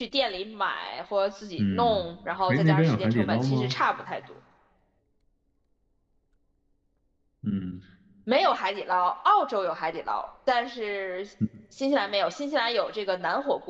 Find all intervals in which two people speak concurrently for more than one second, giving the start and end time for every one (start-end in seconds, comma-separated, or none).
2.5-3.8